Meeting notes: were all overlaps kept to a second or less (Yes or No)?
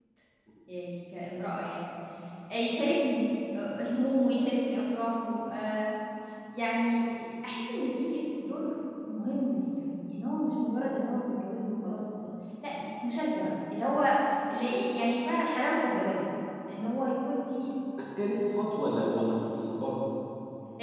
Yes